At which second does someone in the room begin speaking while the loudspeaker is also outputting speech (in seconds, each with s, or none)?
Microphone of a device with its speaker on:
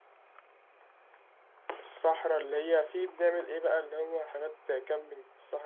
1.8 s